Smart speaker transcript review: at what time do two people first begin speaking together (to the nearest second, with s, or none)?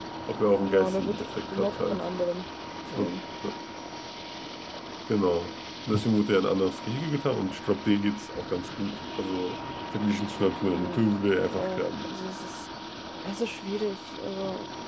1 s